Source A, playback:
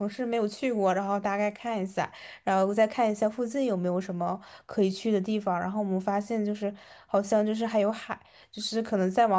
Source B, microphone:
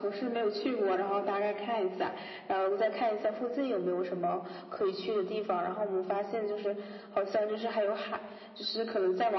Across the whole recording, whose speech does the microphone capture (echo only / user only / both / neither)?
echo only